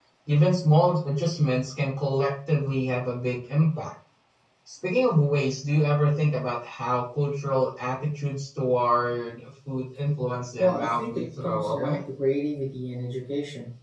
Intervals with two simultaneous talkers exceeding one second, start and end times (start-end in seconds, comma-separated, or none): 10.6-12.0